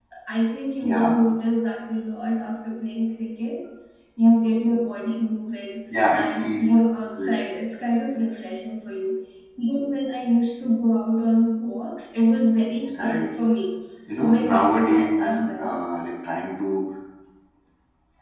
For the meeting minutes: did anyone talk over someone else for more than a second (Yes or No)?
Yes